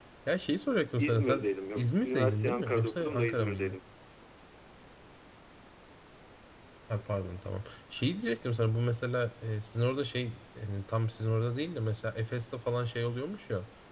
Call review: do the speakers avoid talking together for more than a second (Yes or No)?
No